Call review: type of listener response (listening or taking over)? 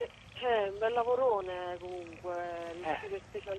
listening